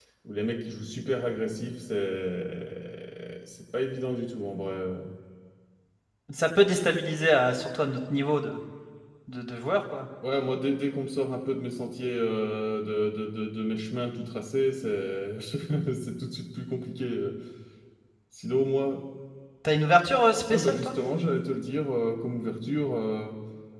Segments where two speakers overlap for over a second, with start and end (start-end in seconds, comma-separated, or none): none